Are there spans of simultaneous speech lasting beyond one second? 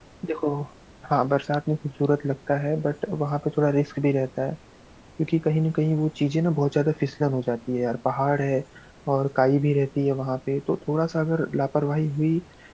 No

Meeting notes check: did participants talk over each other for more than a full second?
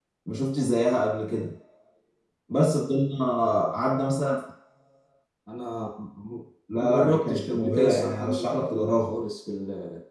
Yes, from 6.7 s

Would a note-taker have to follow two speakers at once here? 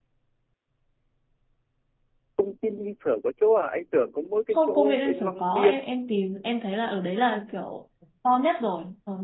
Yes, from 4.5 s

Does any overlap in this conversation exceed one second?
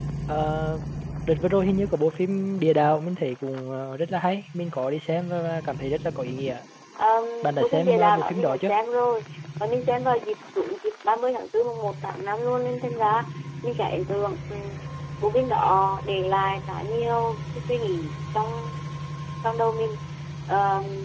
Yes, from 7.4 s

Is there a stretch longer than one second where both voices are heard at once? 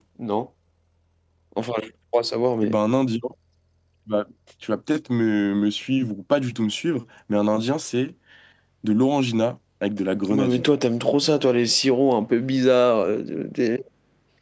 No

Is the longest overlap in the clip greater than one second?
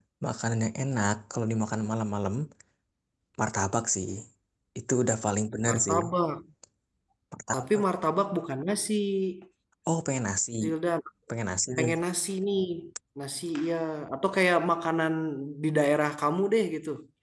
No

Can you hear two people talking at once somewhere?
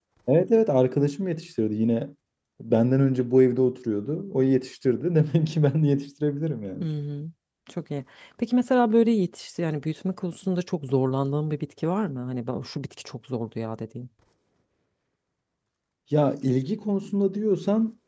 No

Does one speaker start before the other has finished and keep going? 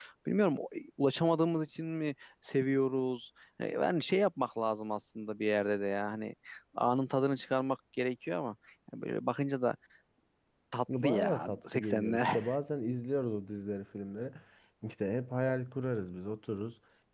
Yes, from 11.0 s

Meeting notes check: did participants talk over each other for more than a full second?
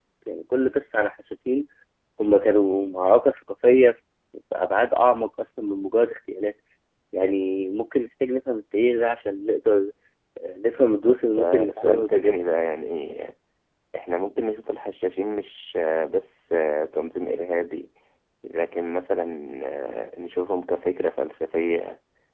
Yes, from 11.1 s

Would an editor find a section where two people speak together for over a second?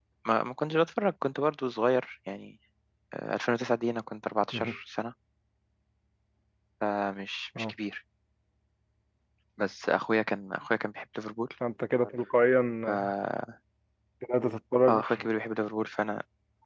No

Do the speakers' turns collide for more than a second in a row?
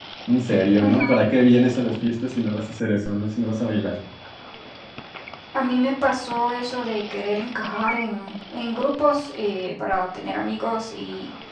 No

